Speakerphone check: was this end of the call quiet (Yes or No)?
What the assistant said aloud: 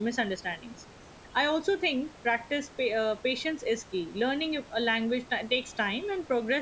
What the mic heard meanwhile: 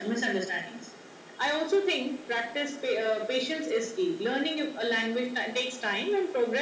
Yes